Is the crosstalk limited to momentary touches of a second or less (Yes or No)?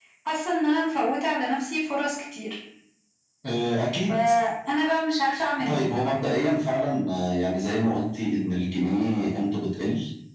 Yes